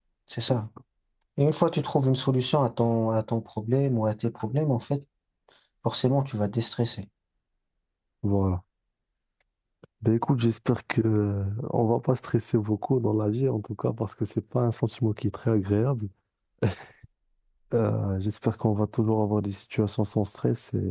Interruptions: none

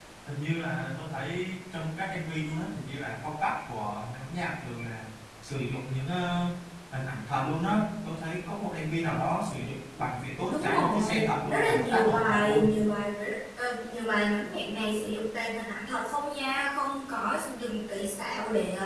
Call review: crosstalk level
present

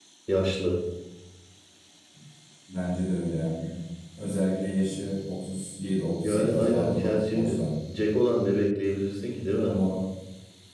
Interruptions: present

